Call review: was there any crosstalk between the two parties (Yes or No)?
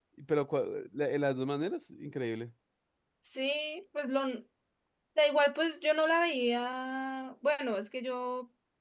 No